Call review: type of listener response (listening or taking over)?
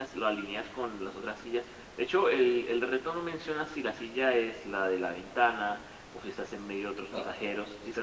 listening